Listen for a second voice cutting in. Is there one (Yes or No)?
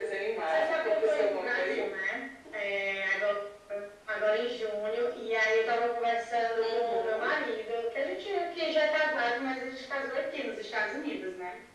Yes